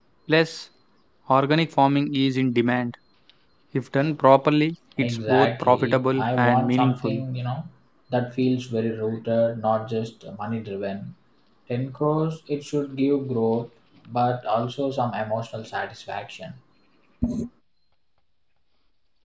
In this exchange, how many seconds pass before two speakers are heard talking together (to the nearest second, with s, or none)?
5 s